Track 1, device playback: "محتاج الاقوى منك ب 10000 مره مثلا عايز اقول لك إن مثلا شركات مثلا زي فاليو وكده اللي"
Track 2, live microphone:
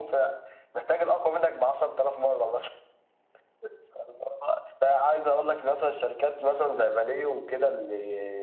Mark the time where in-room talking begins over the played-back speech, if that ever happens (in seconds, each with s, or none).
none